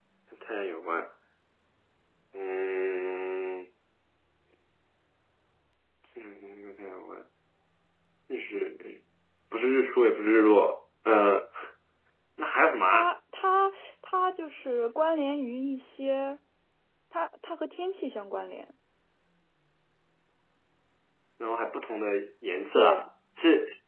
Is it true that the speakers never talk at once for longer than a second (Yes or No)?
Yes